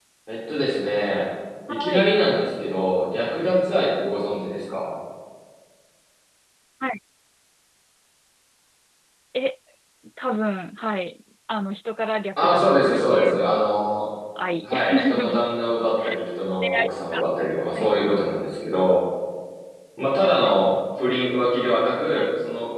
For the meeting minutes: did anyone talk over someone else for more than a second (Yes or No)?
Yes